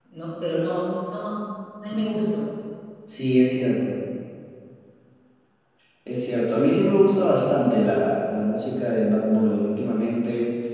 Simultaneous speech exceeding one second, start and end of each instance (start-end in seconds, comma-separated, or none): none